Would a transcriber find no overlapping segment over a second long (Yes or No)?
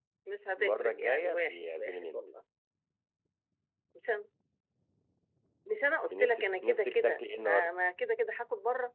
No